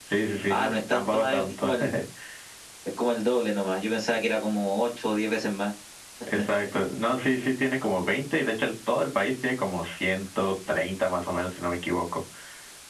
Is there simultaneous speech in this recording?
Yes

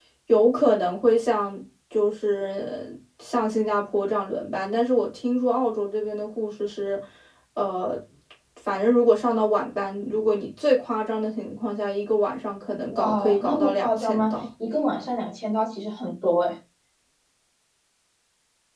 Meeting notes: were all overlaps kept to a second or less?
No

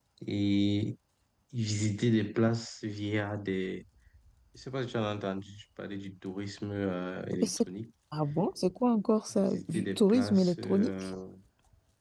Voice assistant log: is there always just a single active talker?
No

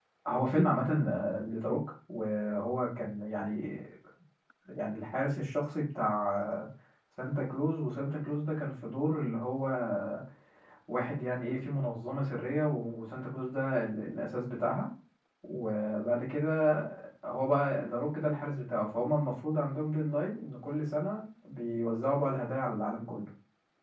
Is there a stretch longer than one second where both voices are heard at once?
No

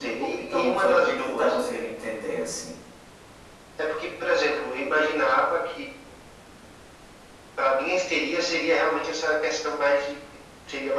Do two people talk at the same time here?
Yes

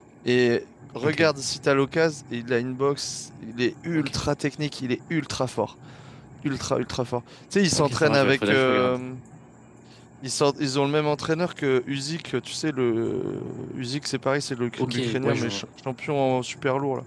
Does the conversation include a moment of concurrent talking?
Yes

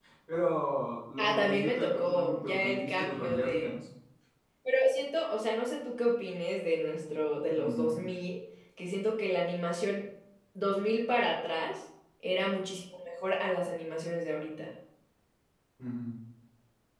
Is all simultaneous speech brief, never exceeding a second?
No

